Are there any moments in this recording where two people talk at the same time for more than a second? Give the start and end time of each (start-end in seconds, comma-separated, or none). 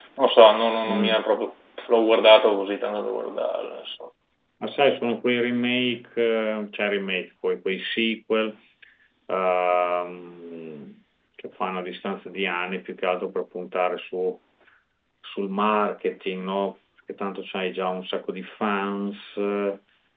none